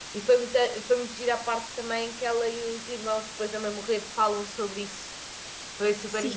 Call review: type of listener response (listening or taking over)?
taking over